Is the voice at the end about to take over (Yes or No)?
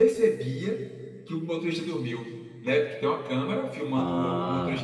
No